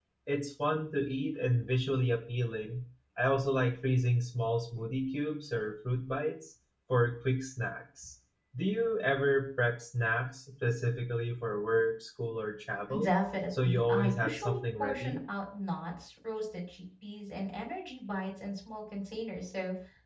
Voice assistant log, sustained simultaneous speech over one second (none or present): present